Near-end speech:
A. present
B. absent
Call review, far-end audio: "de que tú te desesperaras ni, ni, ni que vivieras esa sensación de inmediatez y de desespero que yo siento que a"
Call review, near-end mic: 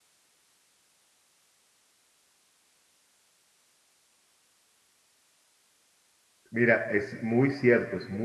A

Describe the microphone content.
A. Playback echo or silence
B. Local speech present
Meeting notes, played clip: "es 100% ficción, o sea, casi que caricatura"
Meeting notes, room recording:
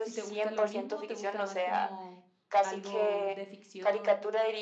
B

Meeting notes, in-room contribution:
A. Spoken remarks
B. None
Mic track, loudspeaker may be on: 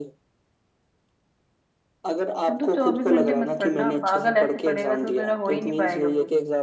A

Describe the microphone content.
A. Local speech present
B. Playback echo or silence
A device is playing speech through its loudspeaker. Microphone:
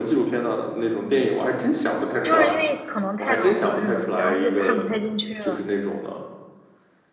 A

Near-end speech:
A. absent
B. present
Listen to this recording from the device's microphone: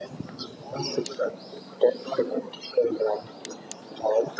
A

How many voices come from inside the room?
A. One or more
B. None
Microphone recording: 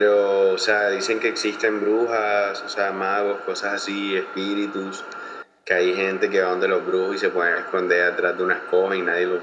B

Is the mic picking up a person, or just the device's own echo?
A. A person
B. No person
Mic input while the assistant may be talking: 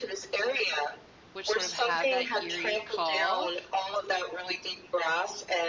A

